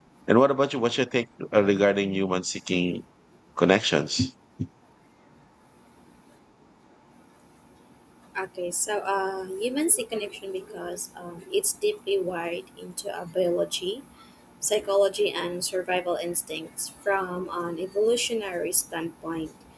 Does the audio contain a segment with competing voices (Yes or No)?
No